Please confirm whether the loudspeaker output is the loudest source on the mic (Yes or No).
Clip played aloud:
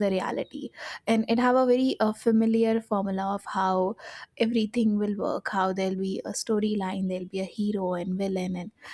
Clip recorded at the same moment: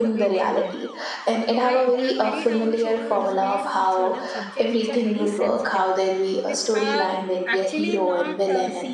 Yes